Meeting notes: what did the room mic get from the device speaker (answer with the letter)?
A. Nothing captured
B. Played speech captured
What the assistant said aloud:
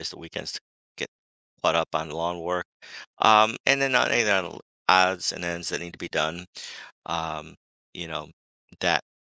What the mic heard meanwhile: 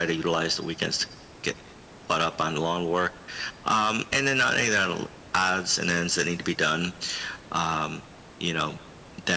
B